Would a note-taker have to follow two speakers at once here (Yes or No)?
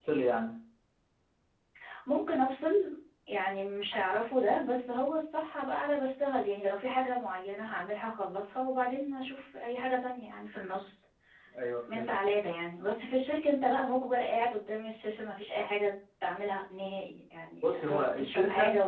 Yes